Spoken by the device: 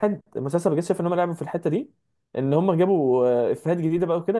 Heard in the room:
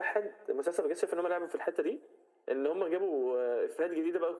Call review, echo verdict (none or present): present